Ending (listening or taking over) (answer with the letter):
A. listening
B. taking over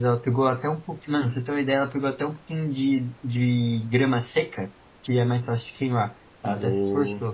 B